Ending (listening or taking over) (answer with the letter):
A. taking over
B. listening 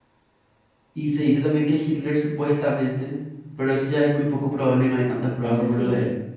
A